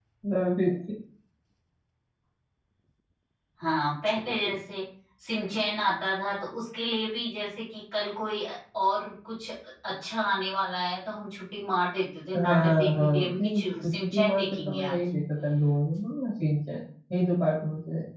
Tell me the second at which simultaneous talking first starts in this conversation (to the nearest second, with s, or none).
12 s